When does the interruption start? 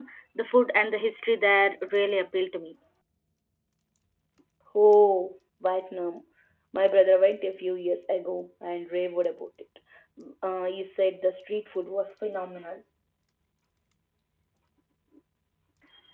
none

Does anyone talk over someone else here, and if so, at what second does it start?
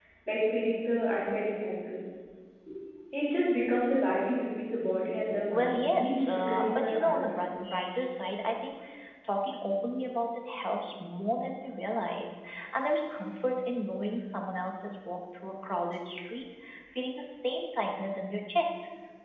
5.5 s

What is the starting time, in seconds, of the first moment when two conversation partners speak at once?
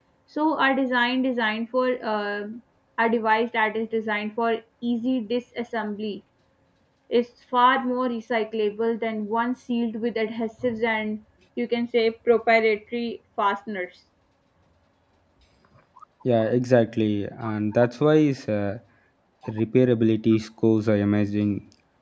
none

